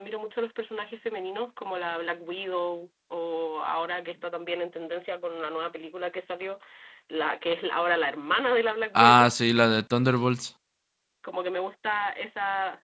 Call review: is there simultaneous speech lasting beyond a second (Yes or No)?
No